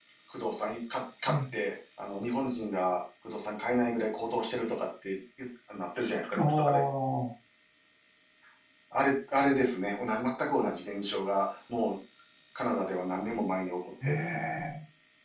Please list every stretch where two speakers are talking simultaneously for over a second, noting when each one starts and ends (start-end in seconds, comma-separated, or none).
none